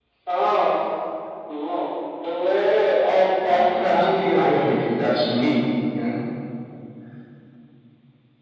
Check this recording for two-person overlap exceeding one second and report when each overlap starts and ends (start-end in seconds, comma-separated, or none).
3.4-4.8